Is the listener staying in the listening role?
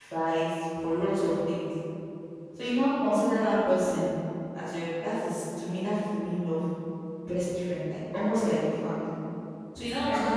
Yes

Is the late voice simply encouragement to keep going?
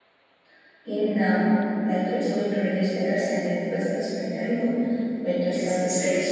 No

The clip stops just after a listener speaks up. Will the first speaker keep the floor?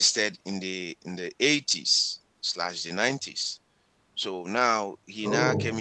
Yes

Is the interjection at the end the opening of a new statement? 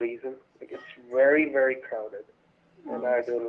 No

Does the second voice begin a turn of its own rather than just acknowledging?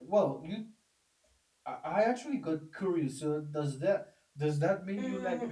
Yes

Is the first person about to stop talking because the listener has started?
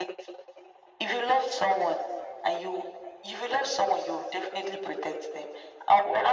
No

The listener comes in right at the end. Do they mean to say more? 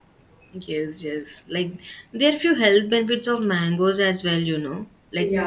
No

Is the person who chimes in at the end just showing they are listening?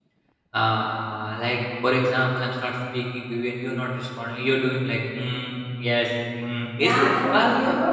No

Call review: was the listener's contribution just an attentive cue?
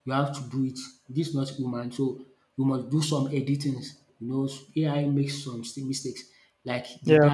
Yes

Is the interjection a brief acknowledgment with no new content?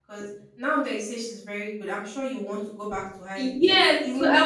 No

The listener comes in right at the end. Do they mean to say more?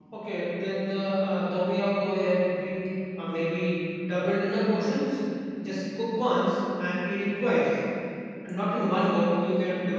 No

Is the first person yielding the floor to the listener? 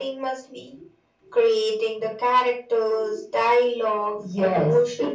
Yes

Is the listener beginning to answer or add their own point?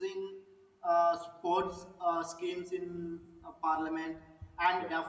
No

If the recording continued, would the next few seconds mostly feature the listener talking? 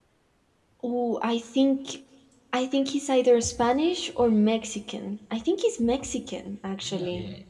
Yes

